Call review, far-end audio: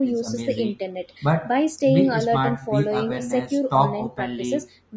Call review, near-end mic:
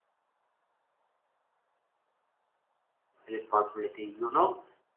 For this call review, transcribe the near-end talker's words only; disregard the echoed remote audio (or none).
responsibility. You know